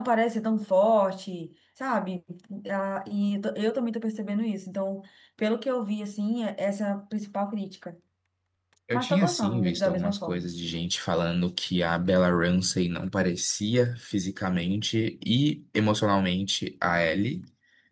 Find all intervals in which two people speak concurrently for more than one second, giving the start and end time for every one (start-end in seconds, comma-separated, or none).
8.9-10.5